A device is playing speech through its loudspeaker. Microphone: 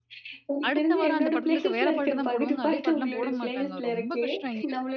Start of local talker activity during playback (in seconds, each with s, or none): 0.7 s